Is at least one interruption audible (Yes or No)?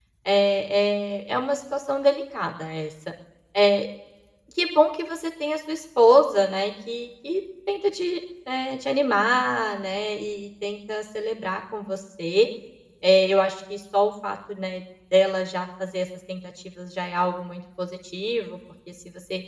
No